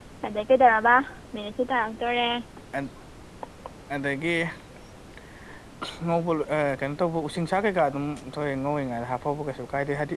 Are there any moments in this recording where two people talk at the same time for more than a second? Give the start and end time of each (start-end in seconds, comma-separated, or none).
none